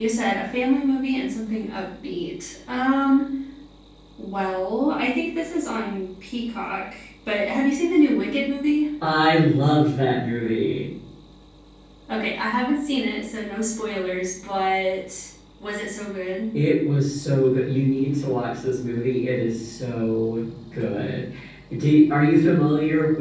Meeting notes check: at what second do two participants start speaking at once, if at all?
none

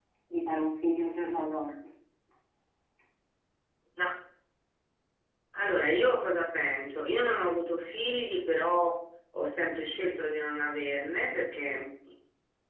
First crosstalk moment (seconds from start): none

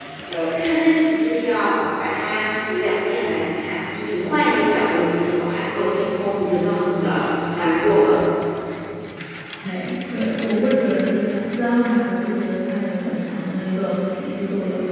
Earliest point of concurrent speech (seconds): none

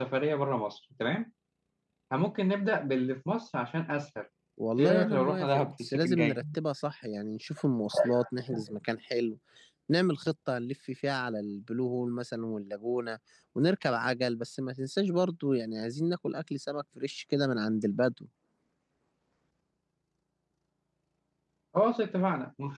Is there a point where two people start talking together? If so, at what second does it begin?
4.8 s

